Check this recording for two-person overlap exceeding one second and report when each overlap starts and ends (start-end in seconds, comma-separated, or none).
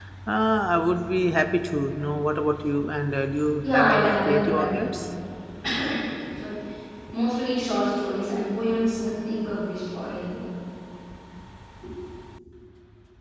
3.6-4.9